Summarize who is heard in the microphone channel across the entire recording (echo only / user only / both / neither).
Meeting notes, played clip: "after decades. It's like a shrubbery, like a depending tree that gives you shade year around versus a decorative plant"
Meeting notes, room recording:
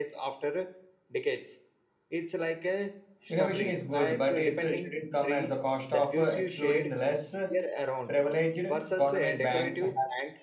both